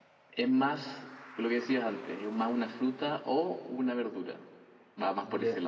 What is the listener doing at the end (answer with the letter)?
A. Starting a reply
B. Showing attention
A